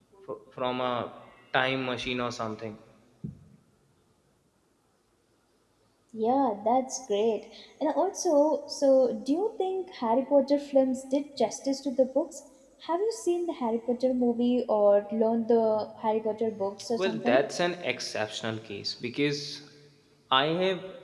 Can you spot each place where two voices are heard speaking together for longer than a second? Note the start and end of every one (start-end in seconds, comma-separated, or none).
none